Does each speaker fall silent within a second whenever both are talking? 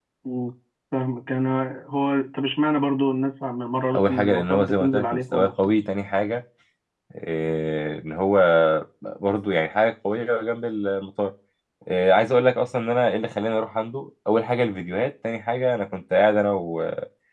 No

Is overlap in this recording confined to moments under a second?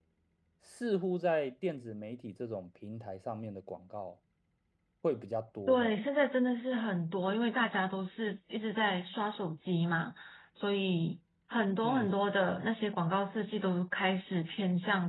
Yes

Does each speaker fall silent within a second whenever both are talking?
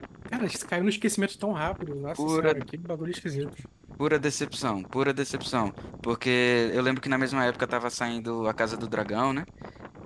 Yes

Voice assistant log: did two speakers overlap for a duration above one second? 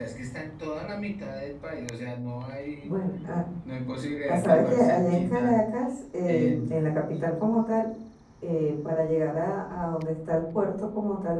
Yes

